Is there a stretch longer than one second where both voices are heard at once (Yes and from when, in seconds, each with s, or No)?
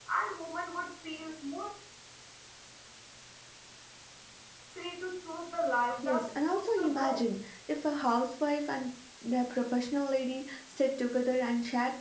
Yes, from 6.0 s